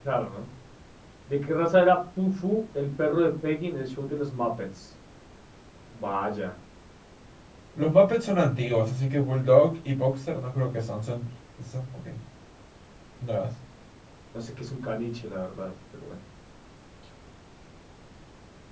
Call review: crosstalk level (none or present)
none